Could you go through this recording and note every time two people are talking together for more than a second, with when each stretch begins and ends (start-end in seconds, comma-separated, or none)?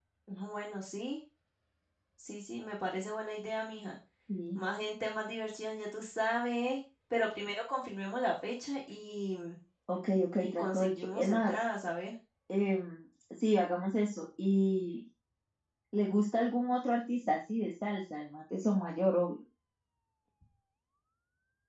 10.4-11.6